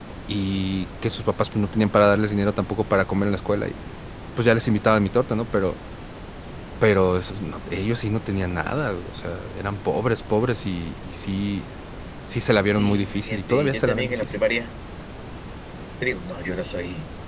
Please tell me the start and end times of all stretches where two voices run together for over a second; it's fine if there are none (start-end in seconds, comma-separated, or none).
12.7-14.1